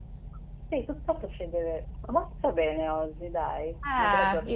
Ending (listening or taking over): taking over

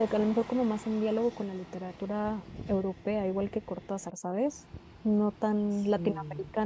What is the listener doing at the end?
listening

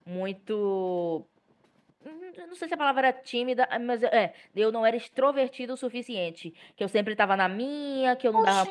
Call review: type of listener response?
taking over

